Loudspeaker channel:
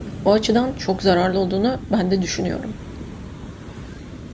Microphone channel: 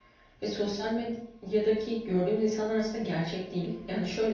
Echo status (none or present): none